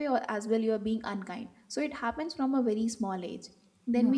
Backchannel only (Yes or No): Yes